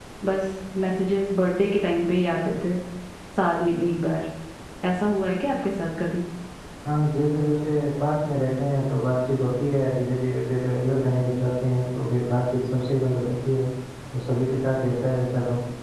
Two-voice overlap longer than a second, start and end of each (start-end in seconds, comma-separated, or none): none